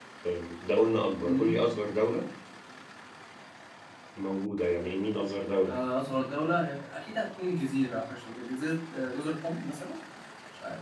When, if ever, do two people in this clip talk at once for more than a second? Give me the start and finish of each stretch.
none

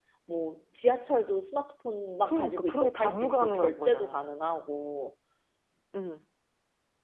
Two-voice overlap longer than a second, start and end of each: 2.2-4.2

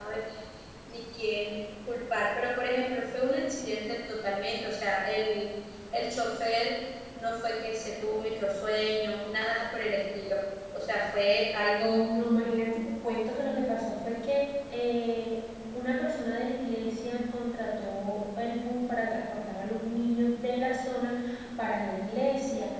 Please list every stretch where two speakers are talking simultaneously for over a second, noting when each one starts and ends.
none

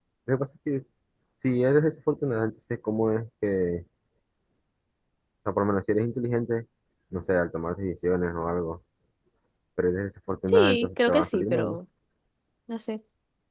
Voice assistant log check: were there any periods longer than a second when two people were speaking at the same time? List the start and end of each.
10.5-11.8

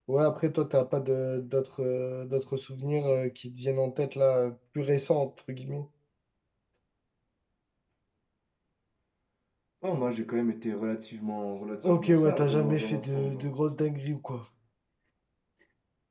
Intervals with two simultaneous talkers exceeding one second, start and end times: 11.8-13.5

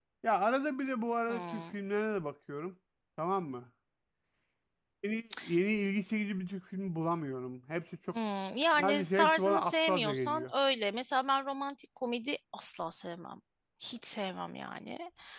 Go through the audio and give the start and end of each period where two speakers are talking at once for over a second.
8.7-10.5

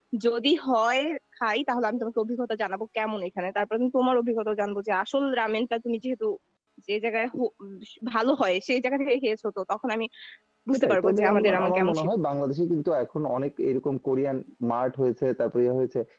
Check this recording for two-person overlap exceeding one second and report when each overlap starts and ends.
10.7-12.1

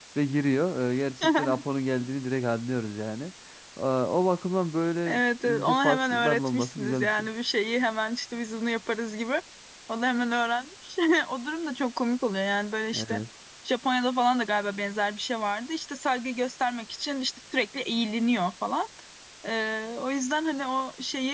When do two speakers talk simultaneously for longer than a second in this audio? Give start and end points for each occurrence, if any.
5.1-7.3

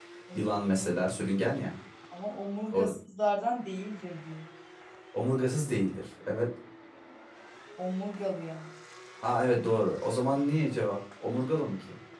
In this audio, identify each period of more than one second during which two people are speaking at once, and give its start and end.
none

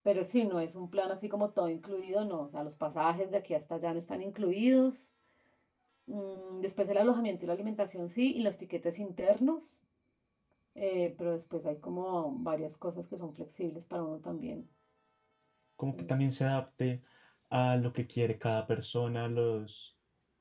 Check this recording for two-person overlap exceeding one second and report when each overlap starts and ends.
none

